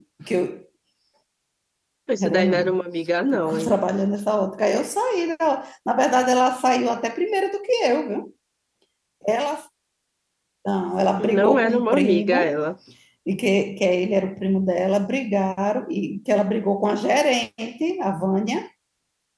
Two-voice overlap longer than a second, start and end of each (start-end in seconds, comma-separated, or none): 11.2-12.6